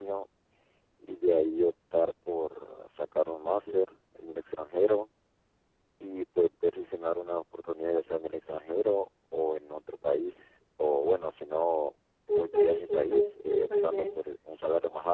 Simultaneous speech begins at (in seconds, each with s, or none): 12.4 s